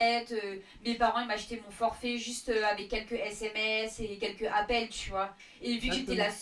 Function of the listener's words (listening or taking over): listening